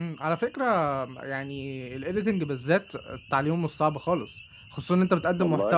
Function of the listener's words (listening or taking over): listening